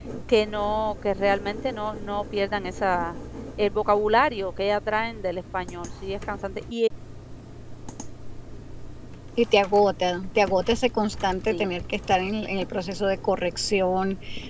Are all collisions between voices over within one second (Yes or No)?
Yes